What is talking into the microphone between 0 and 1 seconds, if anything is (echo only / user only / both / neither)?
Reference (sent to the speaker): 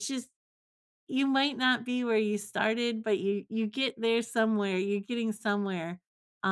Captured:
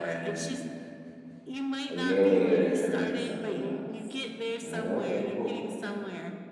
both